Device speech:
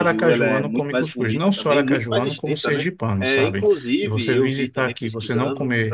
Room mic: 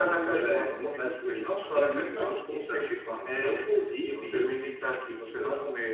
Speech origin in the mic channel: echo only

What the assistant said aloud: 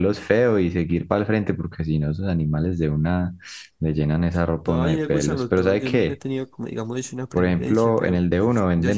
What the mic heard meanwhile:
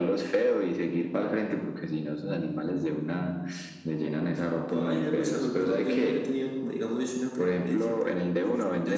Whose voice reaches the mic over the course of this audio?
echo only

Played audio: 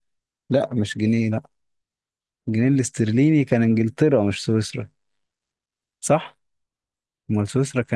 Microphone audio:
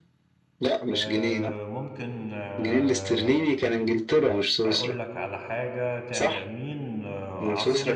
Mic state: both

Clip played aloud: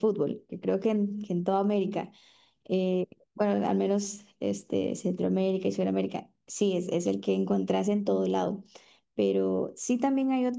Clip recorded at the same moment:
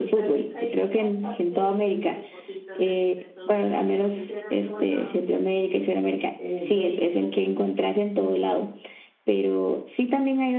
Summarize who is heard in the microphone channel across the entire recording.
both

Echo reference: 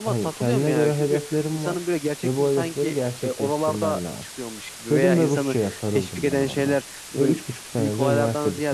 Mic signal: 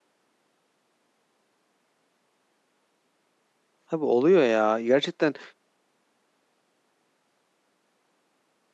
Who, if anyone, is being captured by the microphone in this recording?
user only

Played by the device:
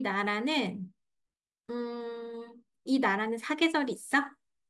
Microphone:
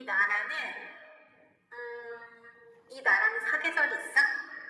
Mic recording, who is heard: echo only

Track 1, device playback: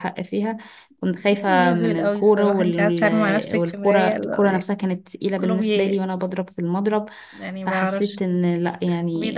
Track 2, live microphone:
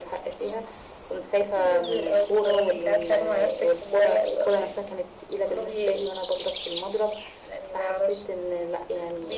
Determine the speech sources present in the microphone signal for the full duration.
echo only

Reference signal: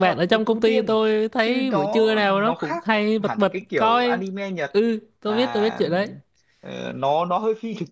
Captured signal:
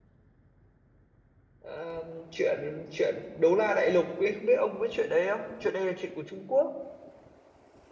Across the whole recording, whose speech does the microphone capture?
user only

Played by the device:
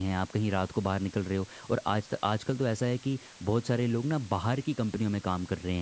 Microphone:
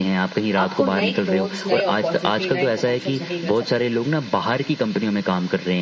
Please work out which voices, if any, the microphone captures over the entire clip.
both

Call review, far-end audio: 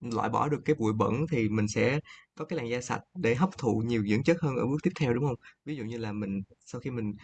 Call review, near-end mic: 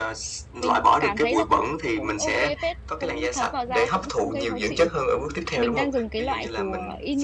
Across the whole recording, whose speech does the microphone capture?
both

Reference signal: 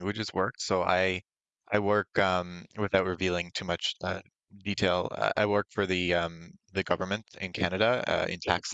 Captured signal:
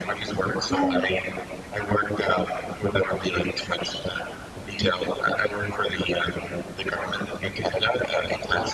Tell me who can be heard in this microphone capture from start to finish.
both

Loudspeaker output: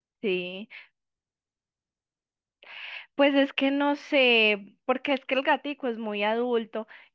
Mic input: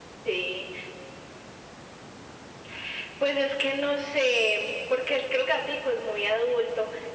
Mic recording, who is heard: echo only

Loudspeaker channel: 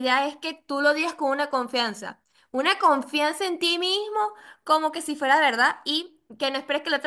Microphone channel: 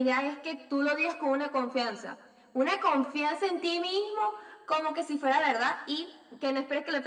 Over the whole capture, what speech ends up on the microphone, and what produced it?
echo only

